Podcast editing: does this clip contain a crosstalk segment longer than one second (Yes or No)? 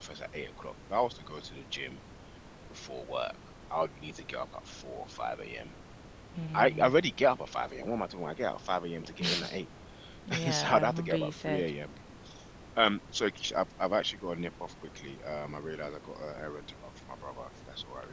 Yes